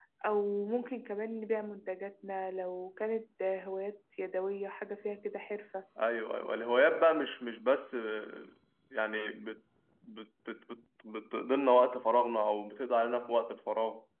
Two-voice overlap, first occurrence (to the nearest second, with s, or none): none